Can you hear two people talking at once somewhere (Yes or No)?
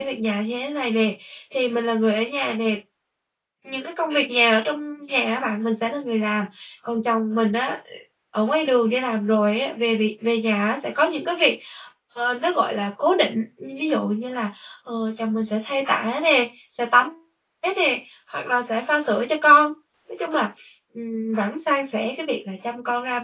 No